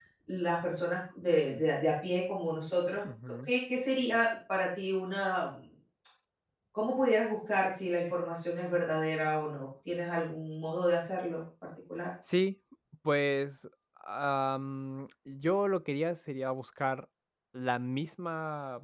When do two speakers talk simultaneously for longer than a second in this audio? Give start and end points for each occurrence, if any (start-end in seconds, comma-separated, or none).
none